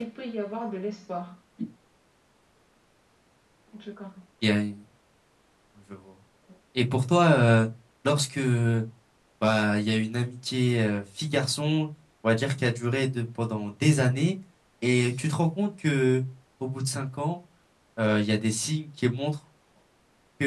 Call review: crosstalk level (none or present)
none